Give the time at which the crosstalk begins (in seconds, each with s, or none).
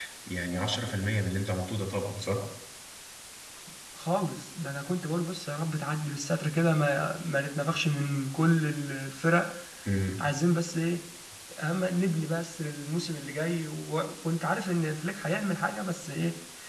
none